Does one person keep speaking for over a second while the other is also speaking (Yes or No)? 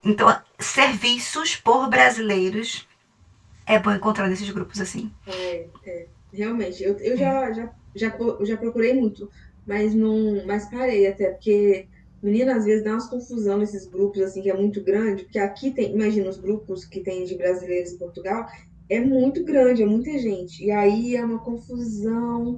No